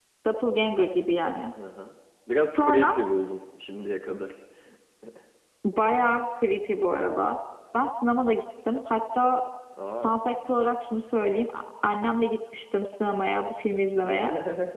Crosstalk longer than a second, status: none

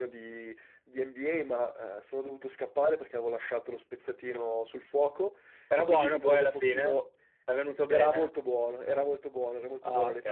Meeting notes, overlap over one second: present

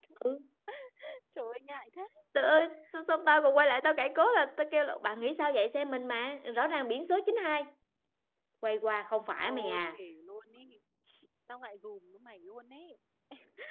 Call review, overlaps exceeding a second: none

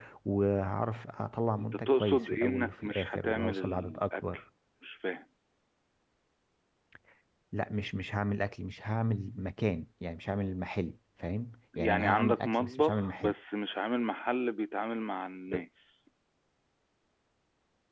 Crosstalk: present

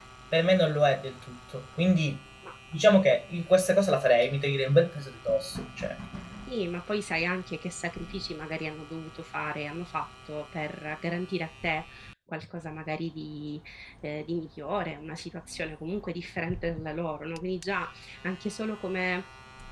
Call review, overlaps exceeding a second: none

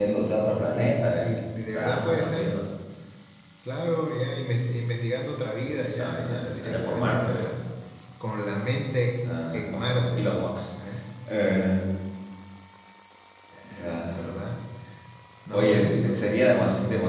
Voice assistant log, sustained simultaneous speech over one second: present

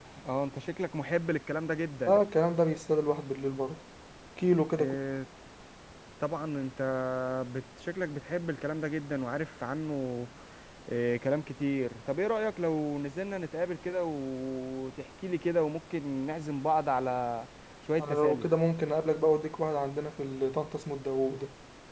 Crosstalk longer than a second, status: none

